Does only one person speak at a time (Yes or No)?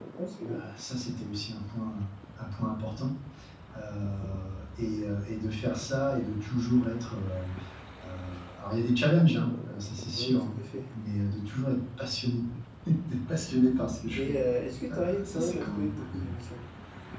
No